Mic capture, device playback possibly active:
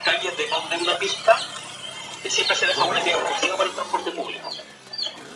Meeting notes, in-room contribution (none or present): present